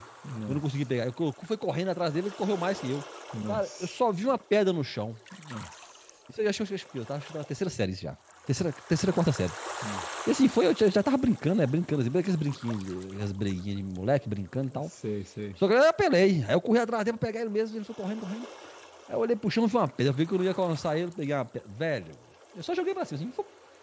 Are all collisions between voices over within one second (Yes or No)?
Yes